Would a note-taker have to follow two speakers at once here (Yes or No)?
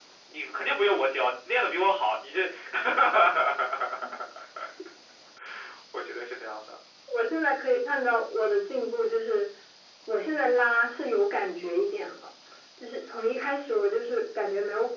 No